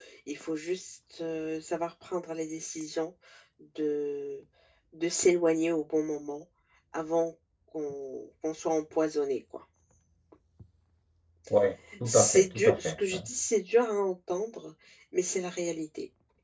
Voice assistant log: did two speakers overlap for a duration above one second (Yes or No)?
Yes